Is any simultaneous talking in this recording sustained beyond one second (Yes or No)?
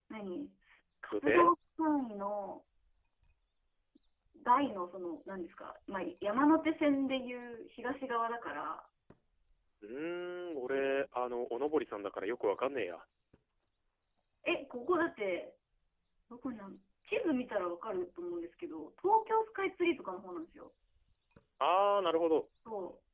No